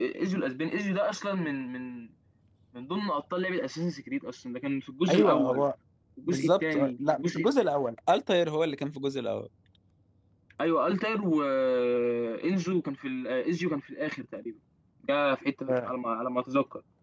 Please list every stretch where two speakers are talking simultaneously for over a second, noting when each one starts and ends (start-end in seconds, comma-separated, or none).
6.2-7.5